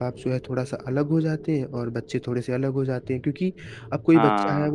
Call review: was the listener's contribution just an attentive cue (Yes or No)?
Yes